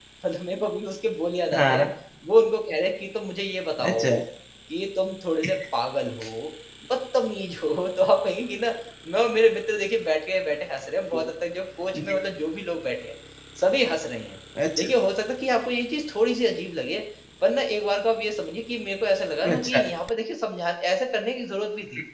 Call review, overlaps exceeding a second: none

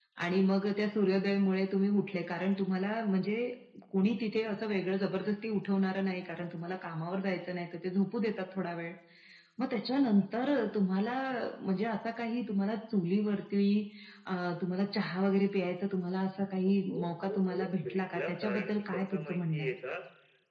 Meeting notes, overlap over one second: present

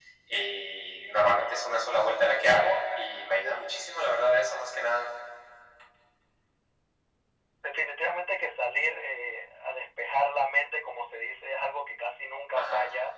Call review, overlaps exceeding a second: none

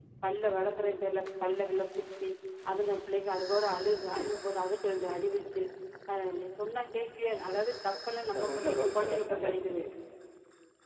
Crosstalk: present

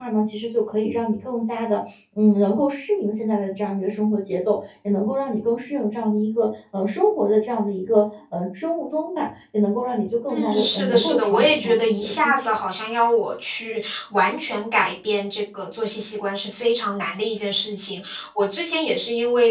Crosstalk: present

